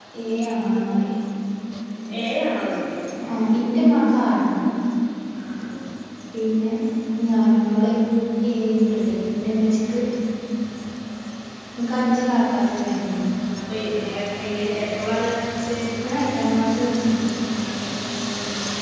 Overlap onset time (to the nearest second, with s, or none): none